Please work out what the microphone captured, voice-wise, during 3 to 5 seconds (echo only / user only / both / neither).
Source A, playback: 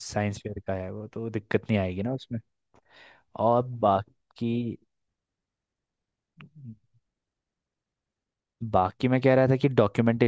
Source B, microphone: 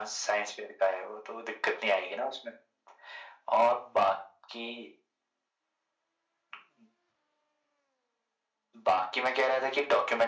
echo only